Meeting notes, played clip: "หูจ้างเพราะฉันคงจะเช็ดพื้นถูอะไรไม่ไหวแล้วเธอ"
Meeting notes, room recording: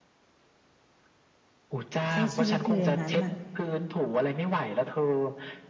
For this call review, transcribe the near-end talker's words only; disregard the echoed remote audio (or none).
ใช้ชีวิตอยู่อย่างนั้นอ่ะ